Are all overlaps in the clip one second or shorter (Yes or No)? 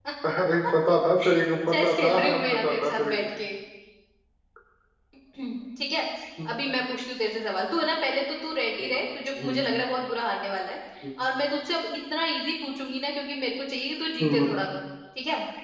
No